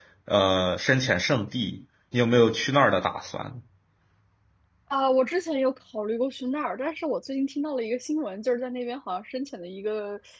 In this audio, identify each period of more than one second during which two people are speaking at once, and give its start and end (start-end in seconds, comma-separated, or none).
none